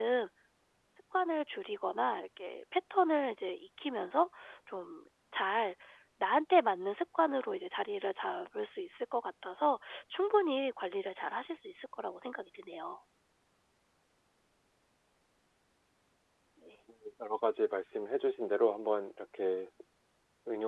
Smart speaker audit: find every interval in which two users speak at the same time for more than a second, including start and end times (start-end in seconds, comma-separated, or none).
none